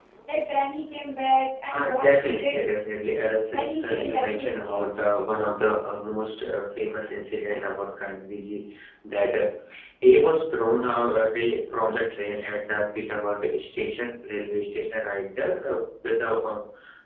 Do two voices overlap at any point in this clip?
Yes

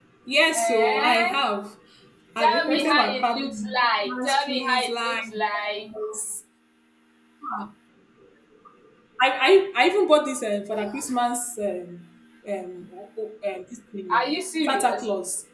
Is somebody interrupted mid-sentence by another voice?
Yes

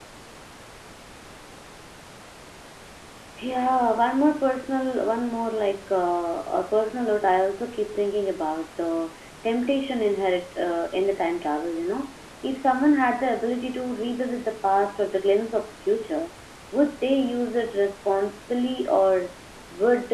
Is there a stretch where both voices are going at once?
No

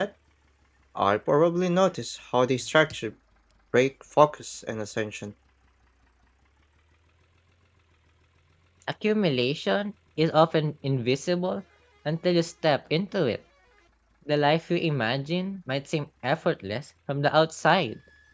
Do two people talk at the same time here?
No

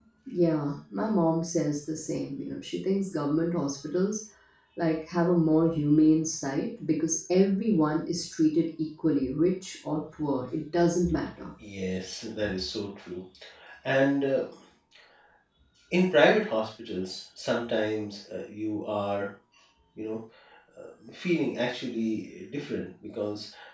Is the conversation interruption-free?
Yes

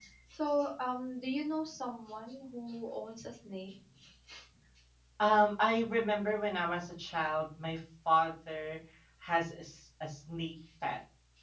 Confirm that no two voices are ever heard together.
Yes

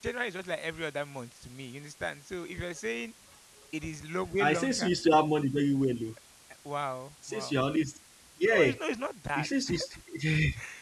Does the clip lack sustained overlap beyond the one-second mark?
Yes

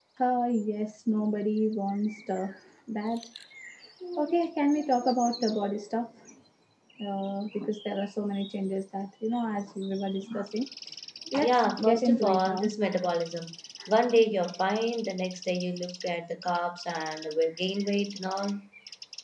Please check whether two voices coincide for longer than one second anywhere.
Yes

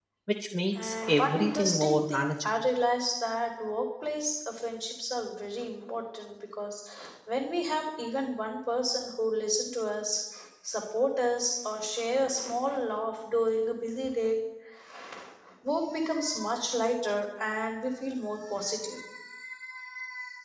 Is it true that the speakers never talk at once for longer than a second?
No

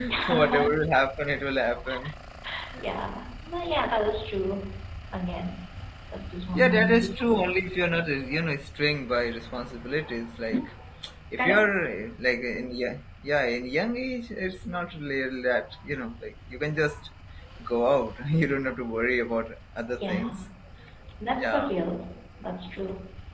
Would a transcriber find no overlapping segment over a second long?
No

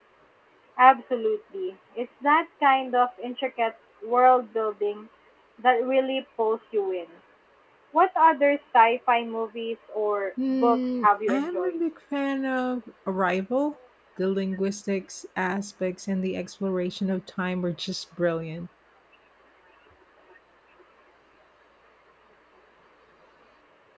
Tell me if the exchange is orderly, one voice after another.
No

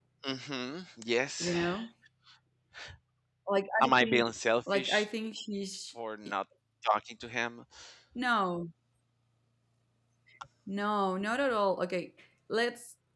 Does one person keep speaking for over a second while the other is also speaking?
No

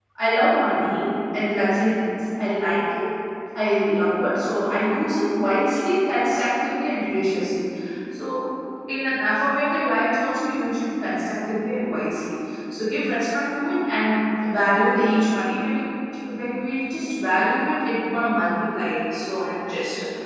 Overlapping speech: No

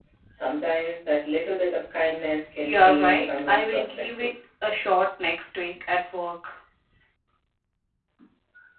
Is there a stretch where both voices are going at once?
Yes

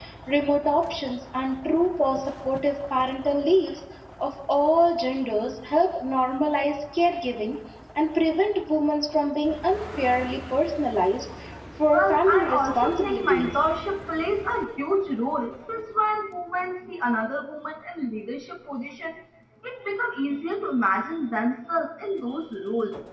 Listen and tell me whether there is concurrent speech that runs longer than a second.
Yes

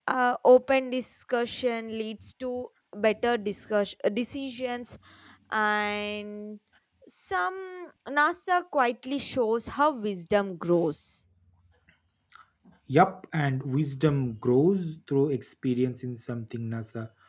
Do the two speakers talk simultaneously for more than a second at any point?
No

